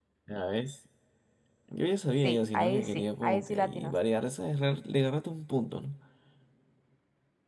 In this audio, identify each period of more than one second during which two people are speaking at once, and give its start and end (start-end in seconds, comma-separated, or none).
2.2-3.9